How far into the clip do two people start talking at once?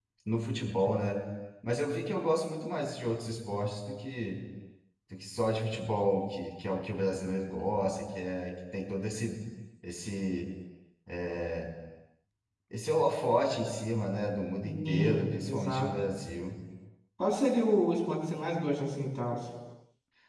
14.6 s

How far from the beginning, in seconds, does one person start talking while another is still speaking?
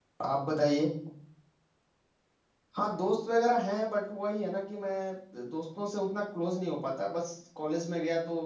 none

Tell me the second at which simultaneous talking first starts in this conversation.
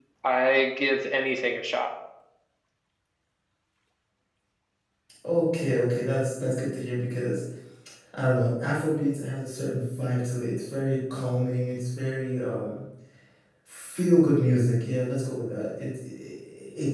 none

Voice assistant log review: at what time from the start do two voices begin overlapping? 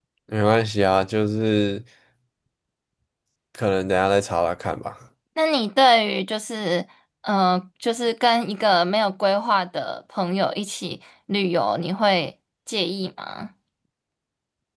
none

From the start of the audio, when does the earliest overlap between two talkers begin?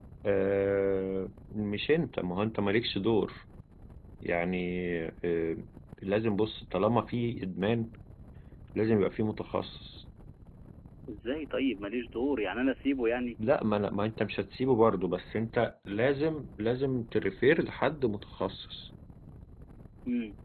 none

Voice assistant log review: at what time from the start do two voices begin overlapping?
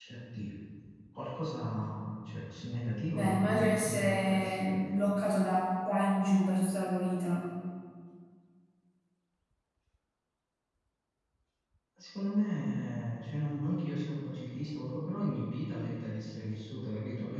3.1 s

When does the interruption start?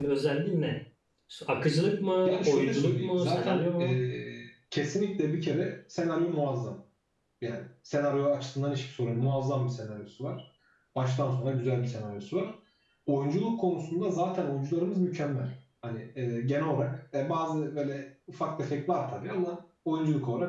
2.2 s

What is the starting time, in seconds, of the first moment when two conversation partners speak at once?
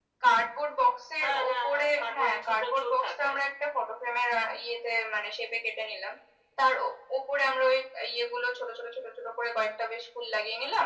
1.2 s

